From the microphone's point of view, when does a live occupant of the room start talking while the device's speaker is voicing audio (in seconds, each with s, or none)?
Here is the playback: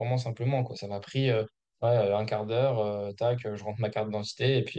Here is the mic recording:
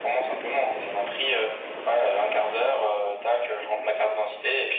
none